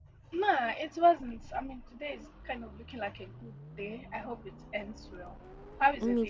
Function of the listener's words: taking over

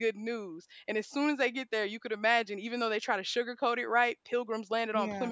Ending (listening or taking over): listening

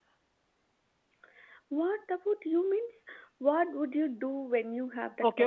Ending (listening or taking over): taking over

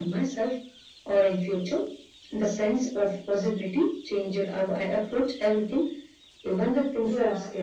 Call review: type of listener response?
taking over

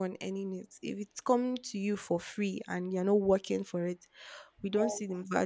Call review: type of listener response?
listening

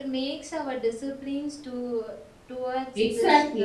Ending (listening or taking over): taking over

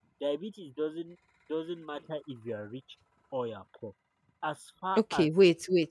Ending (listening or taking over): taking over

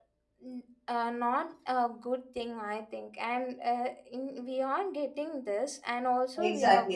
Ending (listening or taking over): taking over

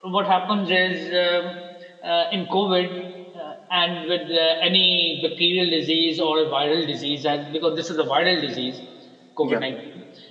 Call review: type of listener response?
listening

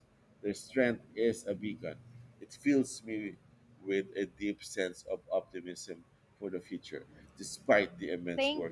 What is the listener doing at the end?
taking over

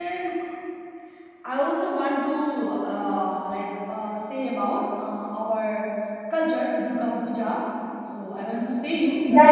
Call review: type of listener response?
taking over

